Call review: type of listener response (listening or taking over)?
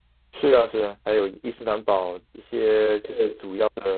listening